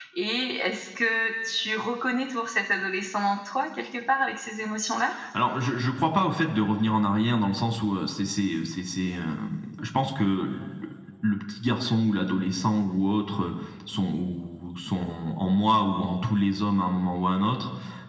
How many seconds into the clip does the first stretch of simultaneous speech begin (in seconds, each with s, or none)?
none